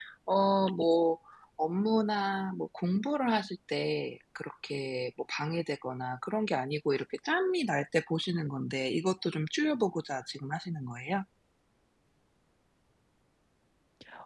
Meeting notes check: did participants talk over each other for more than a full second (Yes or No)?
No